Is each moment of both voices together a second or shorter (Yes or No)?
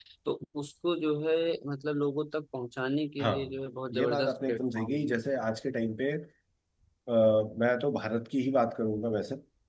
No